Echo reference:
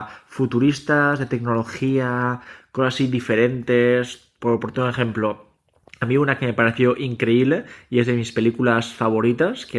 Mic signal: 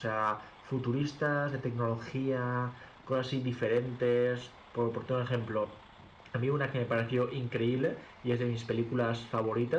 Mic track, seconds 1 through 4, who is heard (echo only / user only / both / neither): echo only